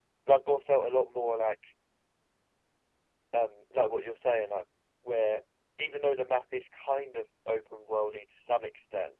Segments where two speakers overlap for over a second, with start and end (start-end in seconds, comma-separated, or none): none